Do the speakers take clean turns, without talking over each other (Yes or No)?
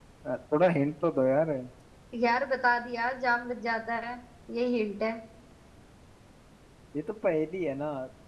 Yes